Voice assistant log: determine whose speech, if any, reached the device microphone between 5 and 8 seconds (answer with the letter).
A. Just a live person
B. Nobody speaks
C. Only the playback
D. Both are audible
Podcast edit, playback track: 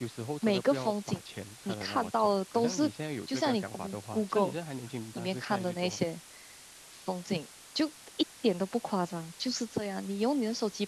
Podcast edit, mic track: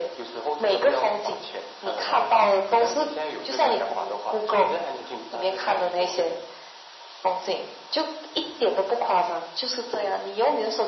C